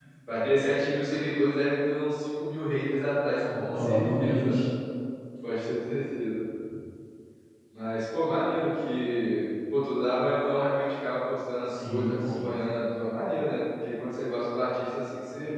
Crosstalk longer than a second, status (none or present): present